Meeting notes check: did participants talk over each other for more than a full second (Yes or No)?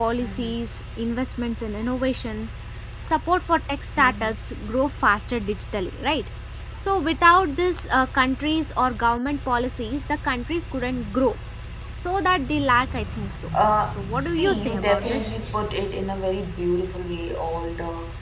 Yes